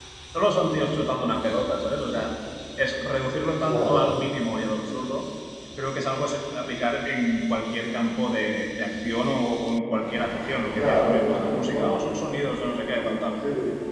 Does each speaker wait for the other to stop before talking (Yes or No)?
No